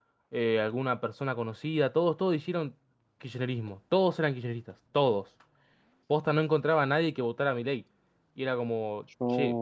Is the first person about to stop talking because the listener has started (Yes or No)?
No